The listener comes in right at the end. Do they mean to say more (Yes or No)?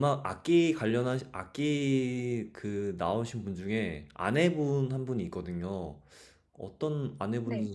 No